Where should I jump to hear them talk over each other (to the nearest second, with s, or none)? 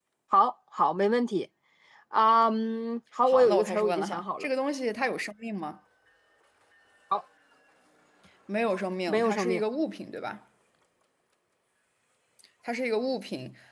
3 s